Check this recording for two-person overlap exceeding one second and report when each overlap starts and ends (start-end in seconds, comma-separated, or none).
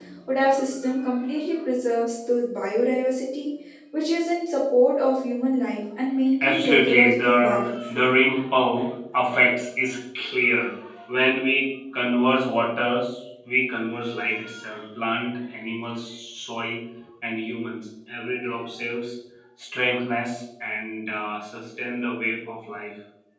6.4-7.8